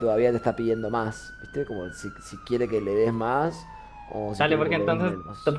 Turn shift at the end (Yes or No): Yes